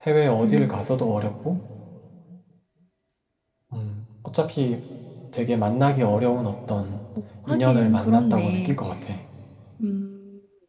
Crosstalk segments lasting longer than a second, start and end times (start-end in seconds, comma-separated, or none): 7.5-8.8